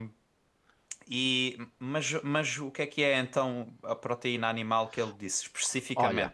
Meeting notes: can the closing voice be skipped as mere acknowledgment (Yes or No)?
Yes